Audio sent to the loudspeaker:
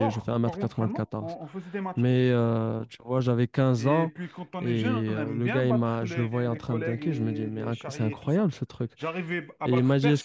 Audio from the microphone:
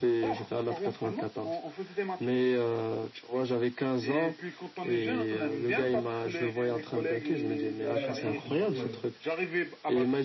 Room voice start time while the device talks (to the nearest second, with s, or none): 8 s